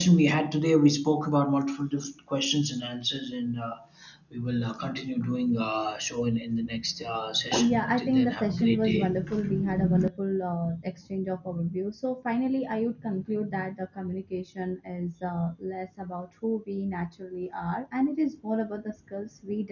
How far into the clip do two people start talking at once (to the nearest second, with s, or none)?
8 s